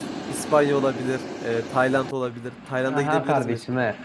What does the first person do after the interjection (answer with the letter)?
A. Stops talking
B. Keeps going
A